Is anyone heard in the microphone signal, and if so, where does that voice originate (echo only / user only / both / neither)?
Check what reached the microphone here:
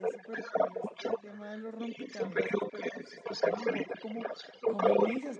both